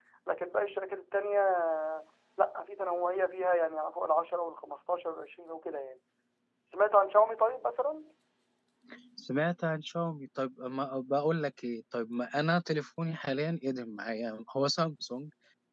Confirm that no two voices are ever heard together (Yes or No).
Yes